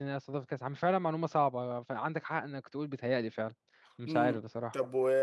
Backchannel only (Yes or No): No